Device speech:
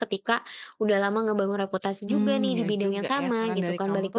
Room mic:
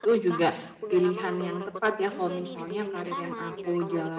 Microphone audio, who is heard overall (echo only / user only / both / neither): both